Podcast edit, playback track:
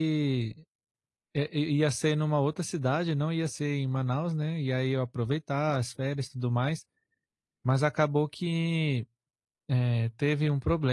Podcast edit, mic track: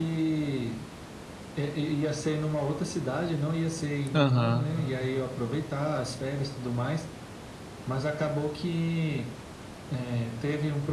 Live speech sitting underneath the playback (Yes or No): No